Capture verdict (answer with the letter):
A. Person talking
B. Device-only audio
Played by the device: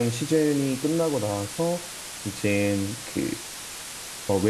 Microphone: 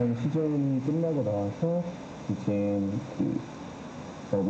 B